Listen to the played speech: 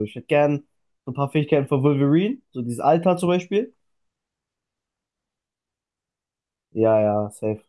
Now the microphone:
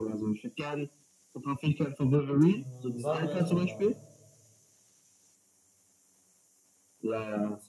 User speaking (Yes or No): Yes